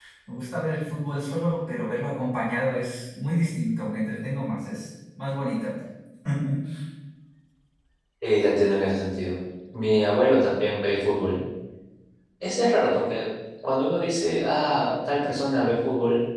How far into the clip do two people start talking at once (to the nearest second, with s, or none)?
none